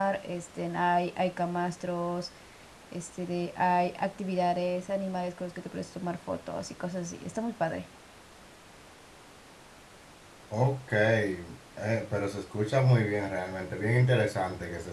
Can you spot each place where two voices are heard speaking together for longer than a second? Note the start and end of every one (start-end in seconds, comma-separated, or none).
none